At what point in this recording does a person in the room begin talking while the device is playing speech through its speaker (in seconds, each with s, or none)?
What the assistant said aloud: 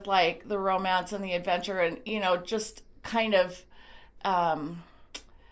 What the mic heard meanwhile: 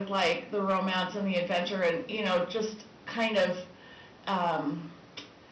none